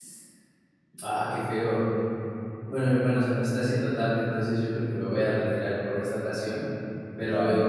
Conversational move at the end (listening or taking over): listening